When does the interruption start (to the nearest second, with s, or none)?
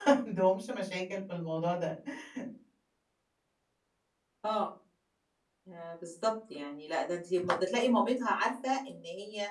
none